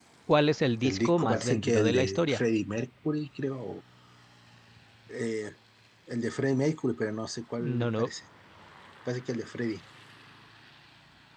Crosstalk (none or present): present